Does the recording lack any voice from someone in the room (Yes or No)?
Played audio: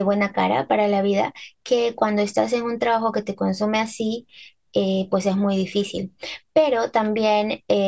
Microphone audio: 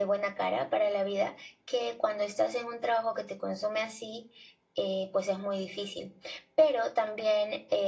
Yes